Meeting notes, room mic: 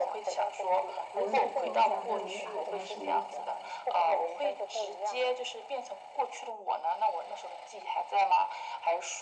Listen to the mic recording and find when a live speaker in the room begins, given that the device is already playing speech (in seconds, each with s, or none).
1.2 s